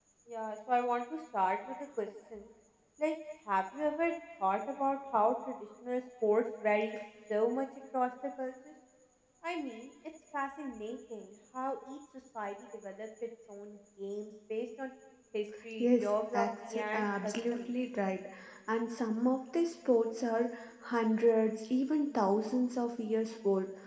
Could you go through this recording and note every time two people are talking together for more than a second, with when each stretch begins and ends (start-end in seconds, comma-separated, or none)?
15.8-17.7